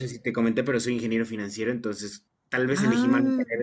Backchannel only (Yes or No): Yes